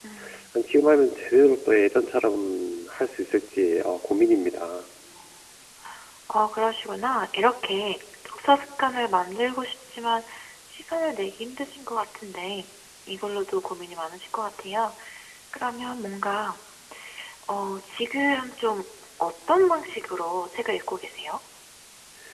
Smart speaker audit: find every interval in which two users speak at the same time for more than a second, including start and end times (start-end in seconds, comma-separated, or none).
none